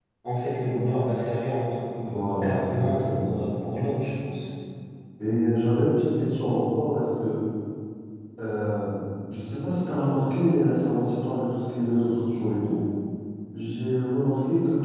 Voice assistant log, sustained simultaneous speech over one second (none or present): present